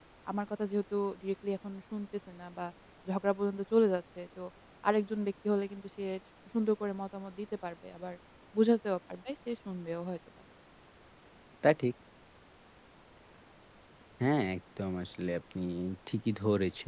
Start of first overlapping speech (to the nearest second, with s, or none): none